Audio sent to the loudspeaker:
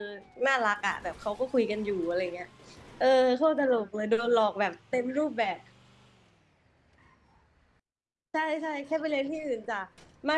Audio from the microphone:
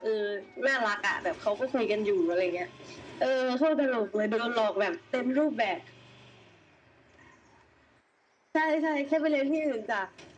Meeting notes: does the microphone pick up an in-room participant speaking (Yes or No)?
No